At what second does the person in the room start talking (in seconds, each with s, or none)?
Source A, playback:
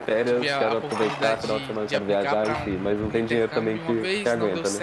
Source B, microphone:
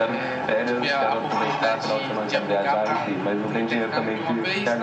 none